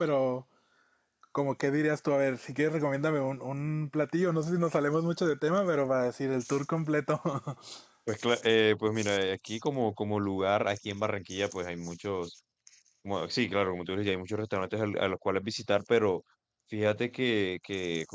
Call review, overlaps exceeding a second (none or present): none